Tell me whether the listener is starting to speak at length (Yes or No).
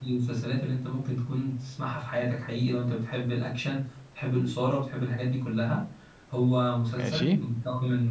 No